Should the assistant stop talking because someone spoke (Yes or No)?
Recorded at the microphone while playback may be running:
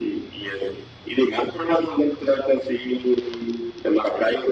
No